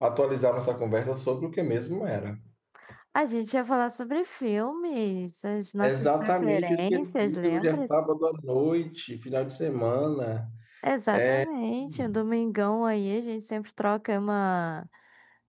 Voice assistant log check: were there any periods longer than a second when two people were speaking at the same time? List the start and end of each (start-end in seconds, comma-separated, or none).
5.8-7.9